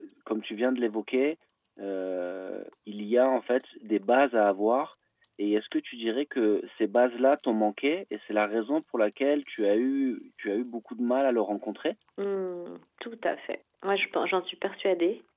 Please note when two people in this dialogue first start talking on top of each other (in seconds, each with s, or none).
none